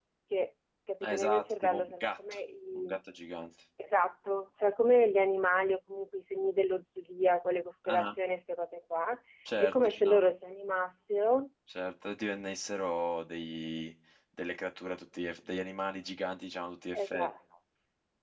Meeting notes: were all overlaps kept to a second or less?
No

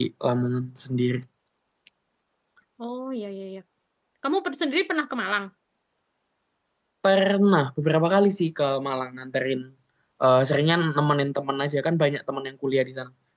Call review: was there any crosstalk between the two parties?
No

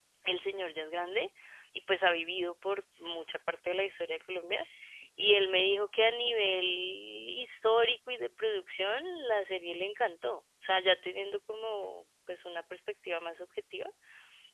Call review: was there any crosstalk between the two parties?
No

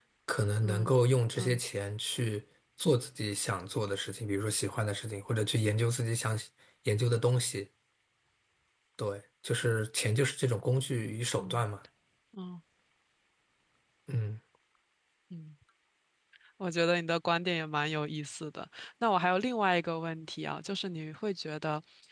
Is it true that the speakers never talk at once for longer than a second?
Yes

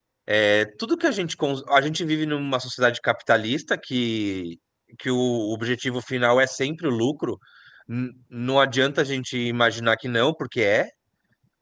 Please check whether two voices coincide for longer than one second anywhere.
No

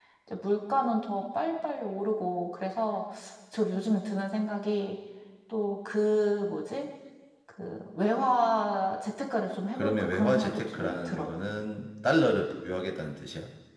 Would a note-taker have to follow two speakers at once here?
Yes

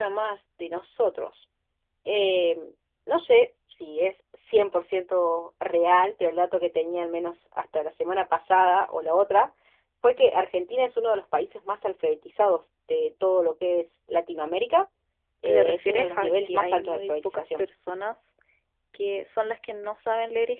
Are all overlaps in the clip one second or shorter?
No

